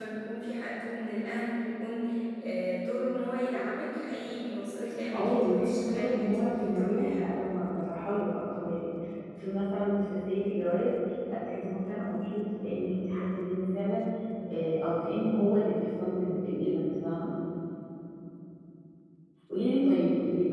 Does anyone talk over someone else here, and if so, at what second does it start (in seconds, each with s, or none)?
5.1 s